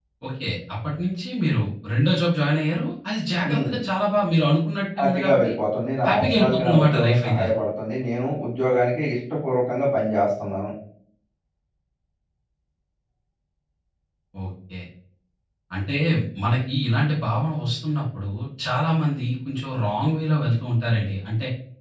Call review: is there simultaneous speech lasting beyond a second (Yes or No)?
Yes